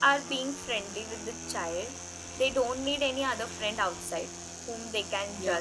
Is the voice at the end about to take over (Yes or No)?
No